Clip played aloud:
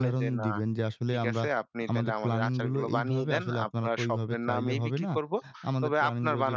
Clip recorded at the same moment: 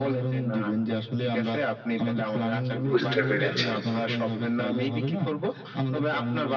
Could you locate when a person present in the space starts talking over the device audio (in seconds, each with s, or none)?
2.9 s